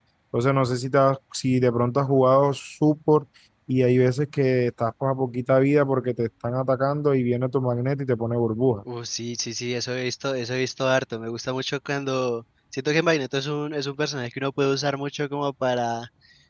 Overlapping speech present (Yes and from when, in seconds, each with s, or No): No